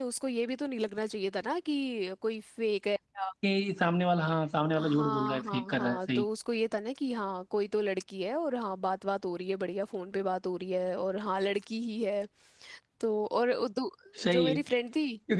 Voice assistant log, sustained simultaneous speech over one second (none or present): present